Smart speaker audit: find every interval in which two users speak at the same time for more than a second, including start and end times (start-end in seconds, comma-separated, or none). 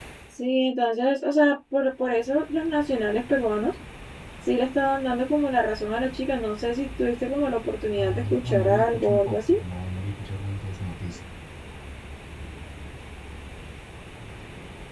8.0-9.6